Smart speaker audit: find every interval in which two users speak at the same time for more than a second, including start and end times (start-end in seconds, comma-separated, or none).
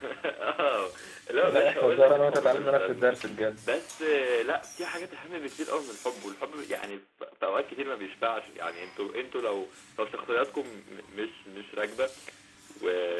1.4-3.1